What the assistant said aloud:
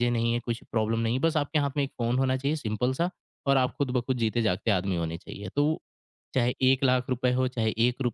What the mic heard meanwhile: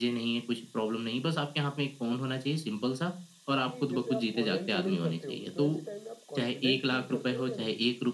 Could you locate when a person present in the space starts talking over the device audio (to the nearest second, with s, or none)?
4 s